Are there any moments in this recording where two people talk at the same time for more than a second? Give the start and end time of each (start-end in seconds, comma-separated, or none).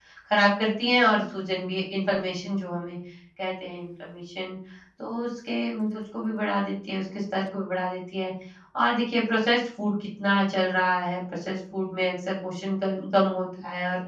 none